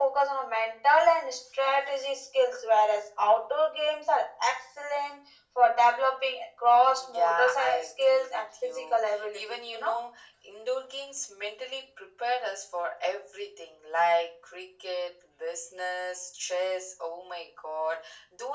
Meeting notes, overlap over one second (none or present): present